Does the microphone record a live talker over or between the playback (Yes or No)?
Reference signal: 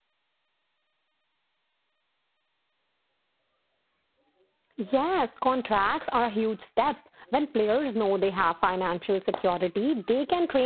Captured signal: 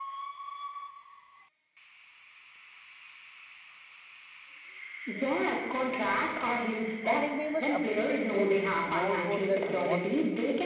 Yes